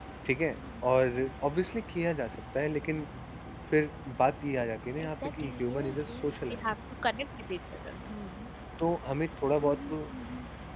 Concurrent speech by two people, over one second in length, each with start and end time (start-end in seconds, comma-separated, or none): 5.0-6.8